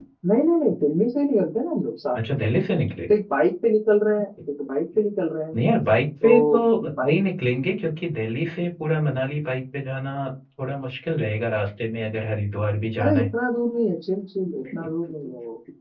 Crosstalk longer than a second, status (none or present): none